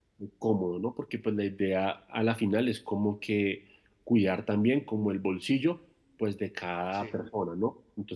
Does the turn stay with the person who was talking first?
Yes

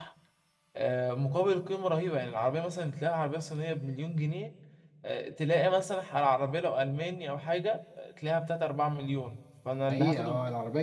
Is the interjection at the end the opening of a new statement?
Yes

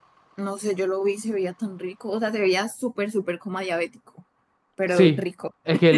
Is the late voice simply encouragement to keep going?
No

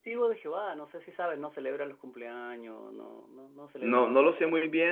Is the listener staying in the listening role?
No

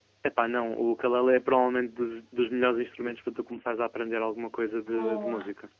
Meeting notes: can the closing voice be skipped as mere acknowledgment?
No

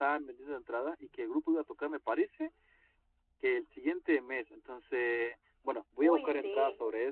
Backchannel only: Yes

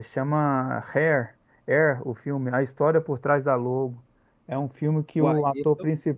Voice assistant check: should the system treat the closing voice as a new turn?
No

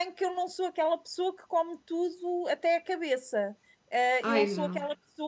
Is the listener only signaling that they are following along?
Yes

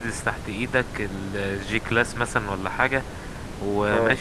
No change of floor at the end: Yes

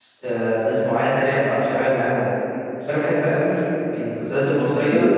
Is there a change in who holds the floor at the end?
No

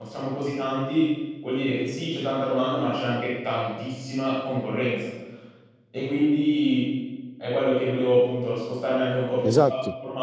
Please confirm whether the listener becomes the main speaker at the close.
No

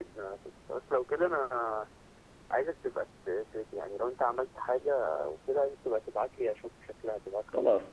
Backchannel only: No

